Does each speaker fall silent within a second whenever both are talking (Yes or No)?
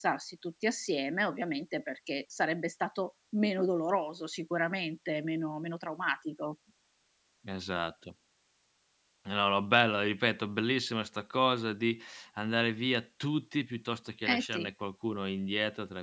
Yes